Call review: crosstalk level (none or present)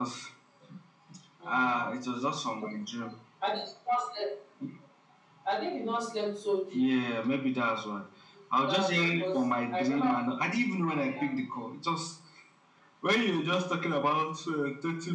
present